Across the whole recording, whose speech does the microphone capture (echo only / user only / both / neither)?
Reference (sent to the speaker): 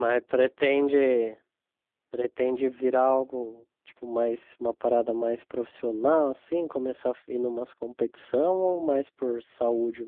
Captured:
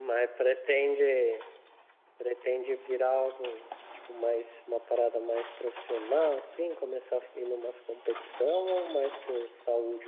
echo only